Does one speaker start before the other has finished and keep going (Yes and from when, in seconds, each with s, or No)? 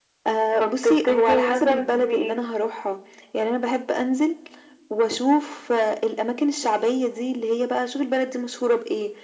Yes, from 0.6 s